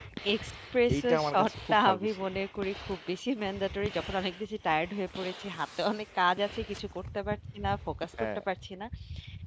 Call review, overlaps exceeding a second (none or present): present